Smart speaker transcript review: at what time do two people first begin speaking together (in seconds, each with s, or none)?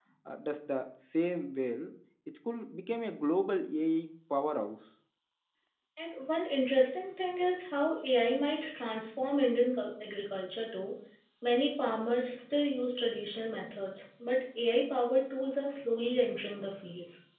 none